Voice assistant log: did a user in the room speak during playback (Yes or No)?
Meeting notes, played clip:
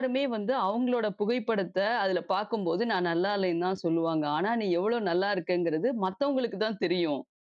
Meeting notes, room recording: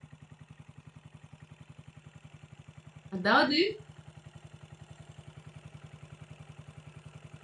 Yes